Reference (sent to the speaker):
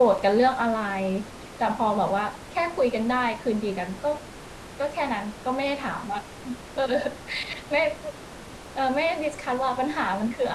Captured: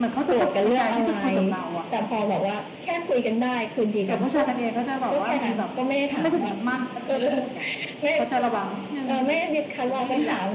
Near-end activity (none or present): present